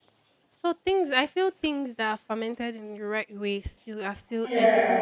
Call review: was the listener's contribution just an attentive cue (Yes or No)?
Yes